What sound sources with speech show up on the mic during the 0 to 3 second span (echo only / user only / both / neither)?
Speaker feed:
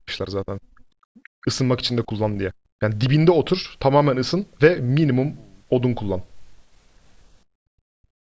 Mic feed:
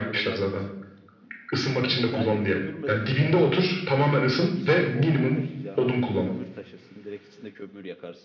both